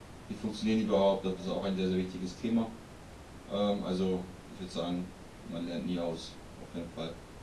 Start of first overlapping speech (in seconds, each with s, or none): none